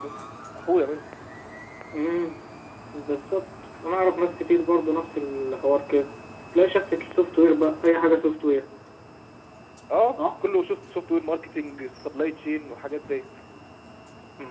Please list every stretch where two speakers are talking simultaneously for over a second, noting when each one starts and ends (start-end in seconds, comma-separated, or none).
none